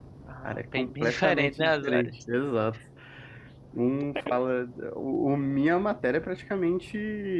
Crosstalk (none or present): present